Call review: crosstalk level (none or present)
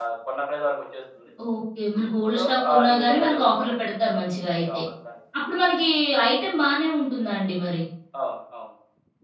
present